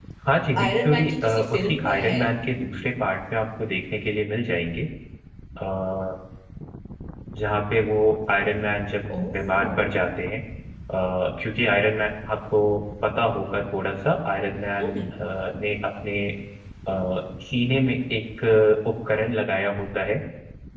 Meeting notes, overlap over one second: present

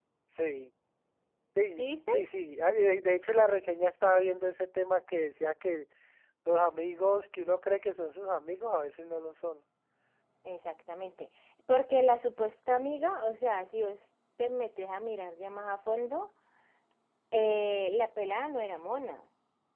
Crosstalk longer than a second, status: none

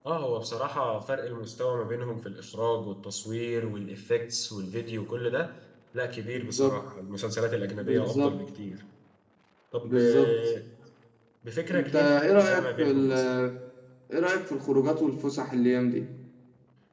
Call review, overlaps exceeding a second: present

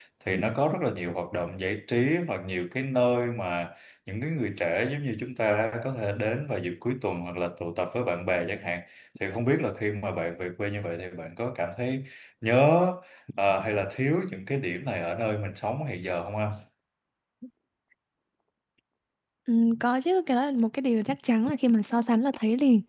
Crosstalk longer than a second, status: none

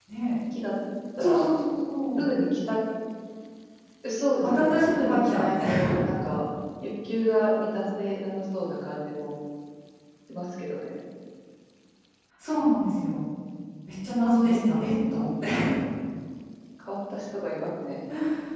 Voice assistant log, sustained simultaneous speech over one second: present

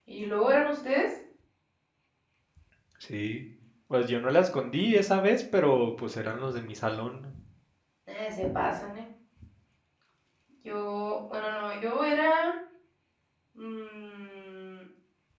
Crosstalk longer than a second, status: none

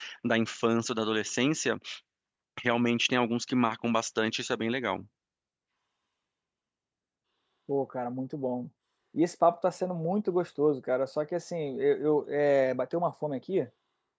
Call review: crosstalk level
none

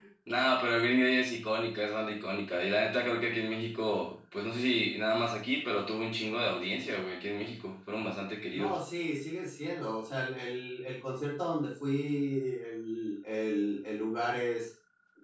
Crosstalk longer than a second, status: none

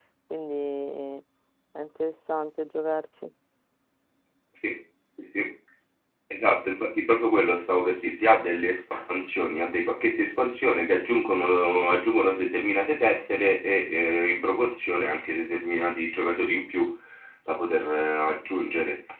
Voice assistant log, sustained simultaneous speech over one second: none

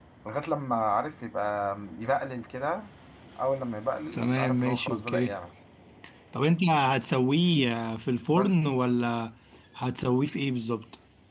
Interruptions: present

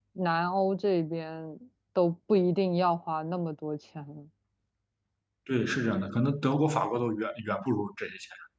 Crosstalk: none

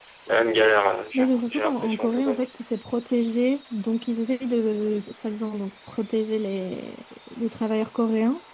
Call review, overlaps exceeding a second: present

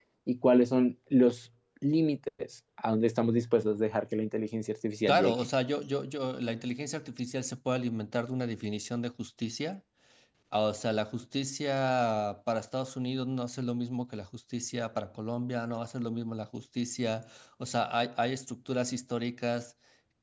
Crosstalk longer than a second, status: none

